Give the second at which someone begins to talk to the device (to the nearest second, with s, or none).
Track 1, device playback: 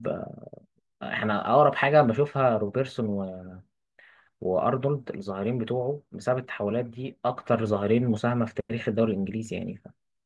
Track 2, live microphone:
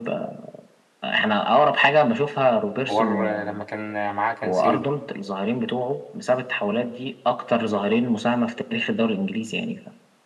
3 s